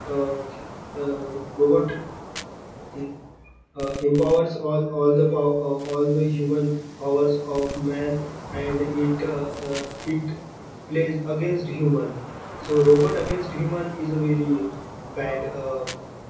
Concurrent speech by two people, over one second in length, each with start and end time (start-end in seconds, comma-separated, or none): none